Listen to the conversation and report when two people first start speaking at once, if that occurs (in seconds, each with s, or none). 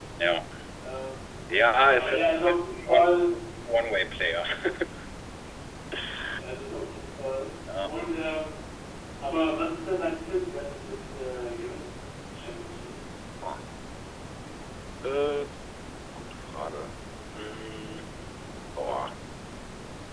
1.9 s